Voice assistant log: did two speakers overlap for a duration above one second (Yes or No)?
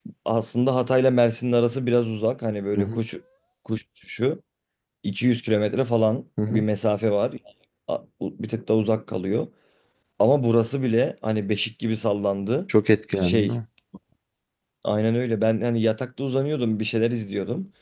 No